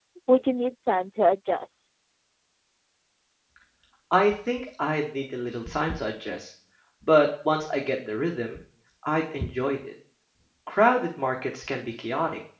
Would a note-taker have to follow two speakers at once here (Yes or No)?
No